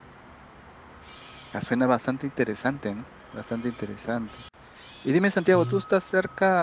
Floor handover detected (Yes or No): No